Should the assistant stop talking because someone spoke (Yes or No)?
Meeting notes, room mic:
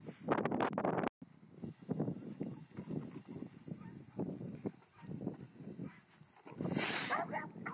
No